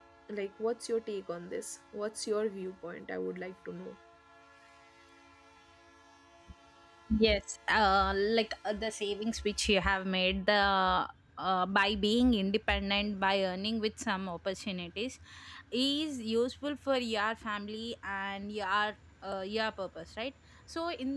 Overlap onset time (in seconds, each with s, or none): none